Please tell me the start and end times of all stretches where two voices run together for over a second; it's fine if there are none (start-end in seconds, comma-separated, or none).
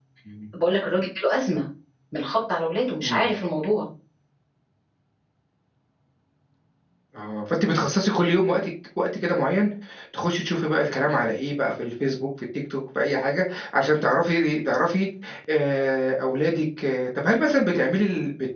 none